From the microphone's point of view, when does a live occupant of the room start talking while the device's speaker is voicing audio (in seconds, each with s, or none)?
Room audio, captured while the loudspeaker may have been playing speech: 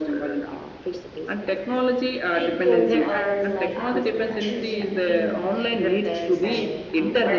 2.3 s